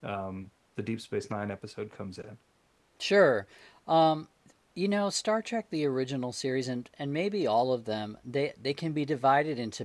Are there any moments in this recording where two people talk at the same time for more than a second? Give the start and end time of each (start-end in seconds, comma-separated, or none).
none